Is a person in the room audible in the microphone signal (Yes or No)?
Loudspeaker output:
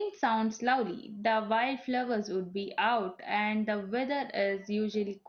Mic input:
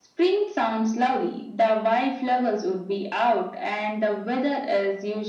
No